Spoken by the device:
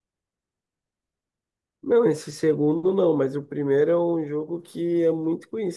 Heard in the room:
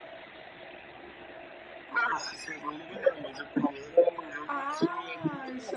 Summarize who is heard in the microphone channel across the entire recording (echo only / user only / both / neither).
both